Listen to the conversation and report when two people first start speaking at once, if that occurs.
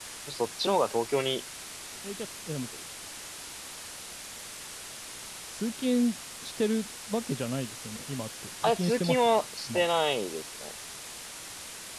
8.6 s

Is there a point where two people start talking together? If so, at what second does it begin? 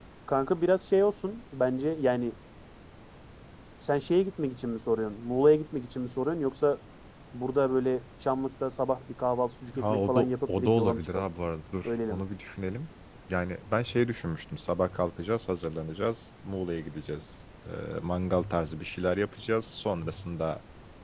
9.8 s

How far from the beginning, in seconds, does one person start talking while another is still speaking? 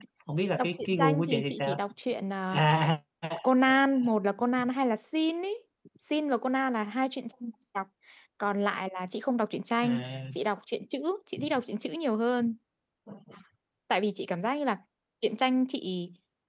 0.6 s

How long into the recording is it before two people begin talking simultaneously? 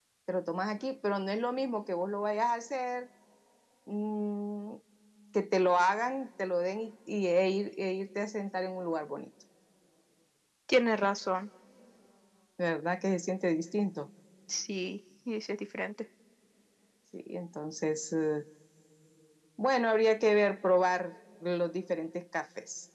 none

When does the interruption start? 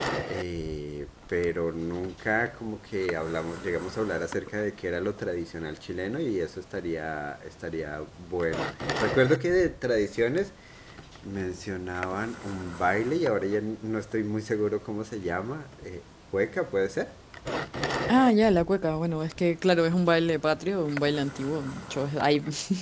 none

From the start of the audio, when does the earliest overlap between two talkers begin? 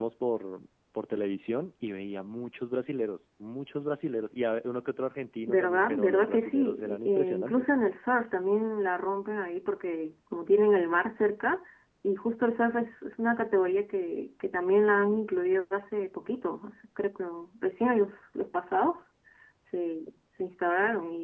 5.5 s

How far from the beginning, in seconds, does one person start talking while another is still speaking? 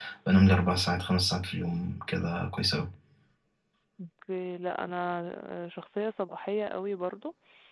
none

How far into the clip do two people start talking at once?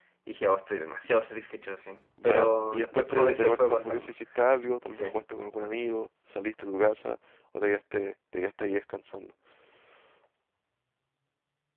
2.2 s

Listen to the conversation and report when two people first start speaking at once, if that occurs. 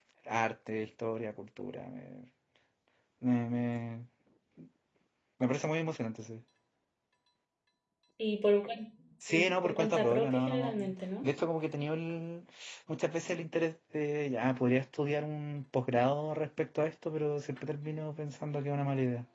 9.2 s

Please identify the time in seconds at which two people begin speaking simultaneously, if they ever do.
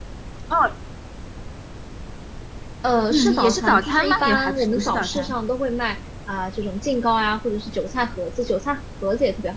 3.1 s

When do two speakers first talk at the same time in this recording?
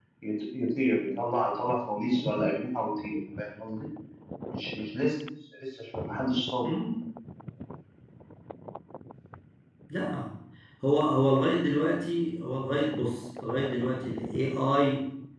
none

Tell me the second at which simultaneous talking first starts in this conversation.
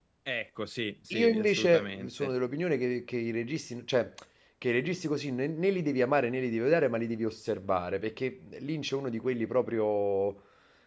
1.1 s

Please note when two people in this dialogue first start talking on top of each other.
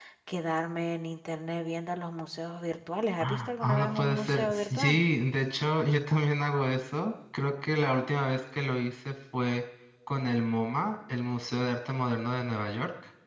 3.1 s

